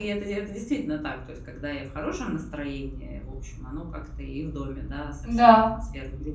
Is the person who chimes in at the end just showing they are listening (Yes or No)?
Yes